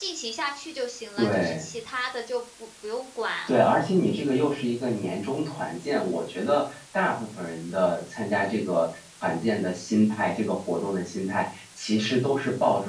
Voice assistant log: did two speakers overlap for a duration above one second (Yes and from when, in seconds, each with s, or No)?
No